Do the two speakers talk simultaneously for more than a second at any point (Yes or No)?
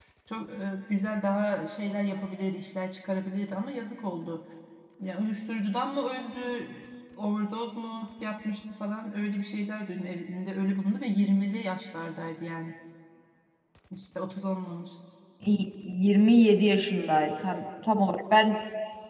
No